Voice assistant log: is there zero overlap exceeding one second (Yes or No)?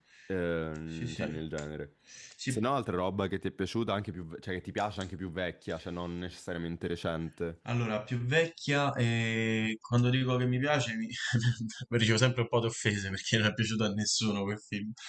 Yes